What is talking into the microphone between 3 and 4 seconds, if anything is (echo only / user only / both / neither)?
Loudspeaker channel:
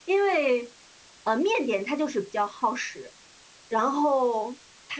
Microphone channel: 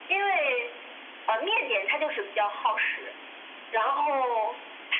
echo only